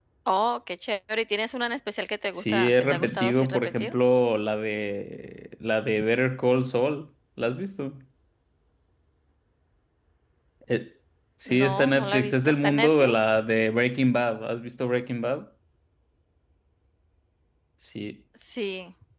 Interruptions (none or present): present